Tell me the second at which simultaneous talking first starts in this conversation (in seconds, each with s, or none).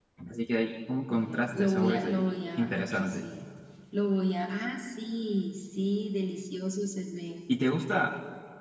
1.1 s